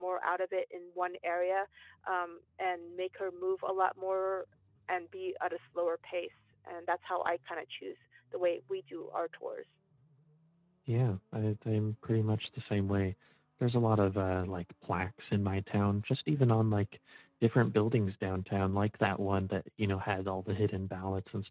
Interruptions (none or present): none